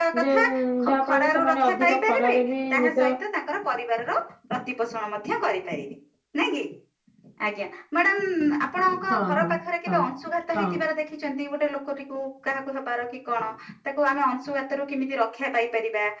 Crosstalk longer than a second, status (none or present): present